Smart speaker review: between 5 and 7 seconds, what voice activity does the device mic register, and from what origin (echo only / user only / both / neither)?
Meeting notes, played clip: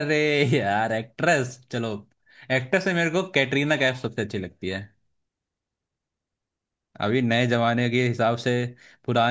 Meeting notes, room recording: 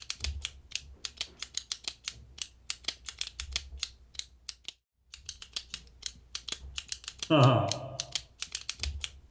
neither